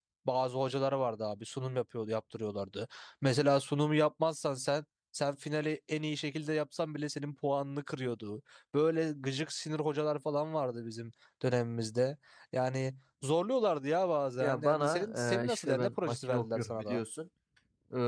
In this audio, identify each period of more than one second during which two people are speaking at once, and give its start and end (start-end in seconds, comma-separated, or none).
14.4-17.0